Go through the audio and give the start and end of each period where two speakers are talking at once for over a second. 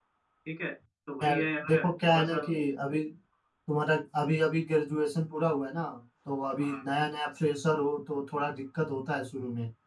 1.2-2.5

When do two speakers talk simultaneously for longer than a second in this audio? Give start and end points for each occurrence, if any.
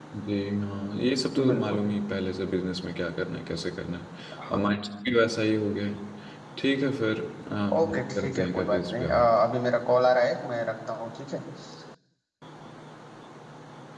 7.8-9.3

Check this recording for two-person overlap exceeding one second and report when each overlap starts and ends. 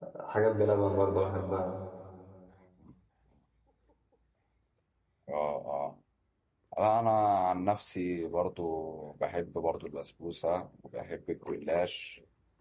none

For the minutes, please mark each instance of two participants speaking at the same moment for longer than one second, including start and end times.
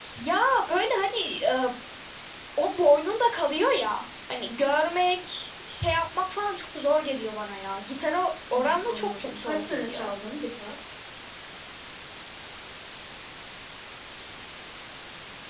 8.5-10.1

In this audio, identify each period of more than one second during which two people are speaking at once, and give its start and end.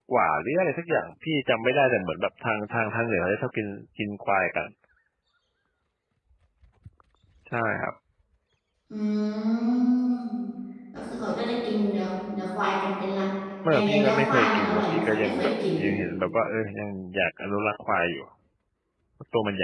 13.7-15.9

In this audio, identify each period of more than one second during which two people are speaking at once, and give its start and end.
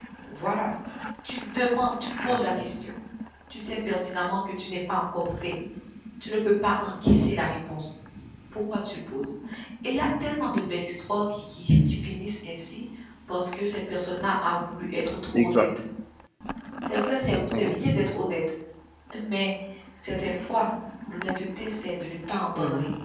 none

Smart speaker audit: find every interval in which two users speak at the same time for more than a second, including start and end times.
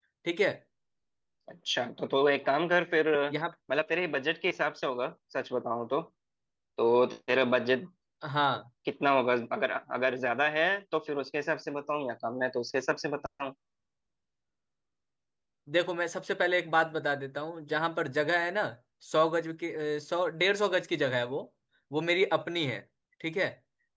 none

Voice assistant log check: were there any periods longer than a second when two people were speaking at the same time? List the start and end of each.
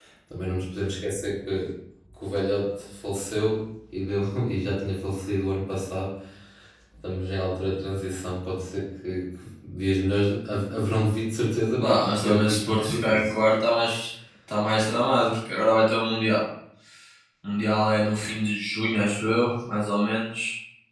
11.8-13.3

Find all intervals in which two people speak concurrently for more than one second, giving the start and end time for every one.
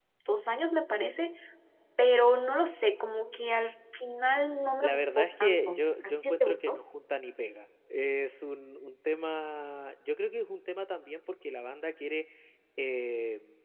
4.8-6.7

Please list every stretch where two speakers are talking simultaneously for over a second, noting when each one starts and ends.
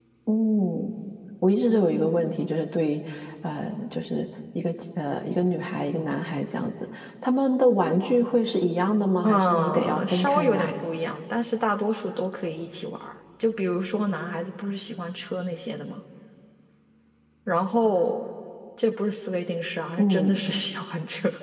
9.2-10.7

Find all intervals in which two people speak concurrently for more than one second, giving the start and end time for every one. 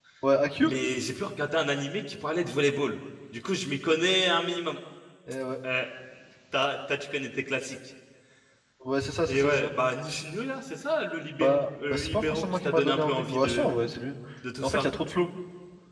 11.4-13.7

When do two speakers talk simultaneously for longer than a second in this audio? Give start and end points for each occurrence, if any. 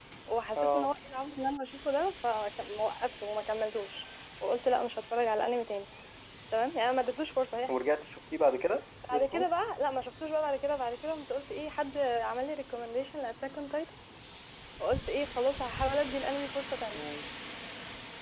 none

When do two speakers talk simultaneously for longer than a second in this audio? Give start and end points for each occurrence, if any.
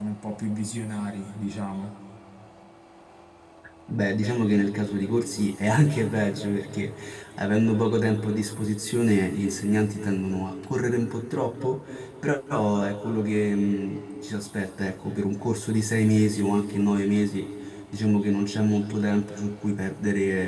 none

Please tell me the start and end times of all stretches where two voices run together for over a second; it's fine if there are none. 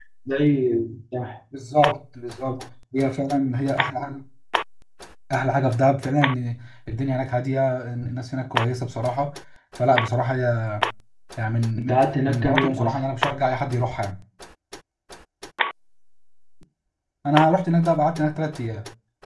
11.8-13.0

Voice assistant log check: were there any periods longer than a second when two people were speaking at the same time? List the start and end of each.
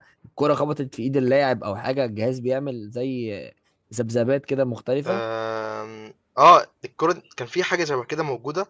none

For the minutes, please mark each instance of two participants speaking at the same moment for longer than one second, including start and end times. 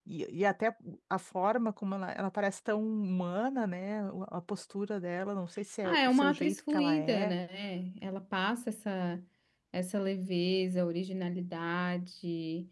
5.8-7.3

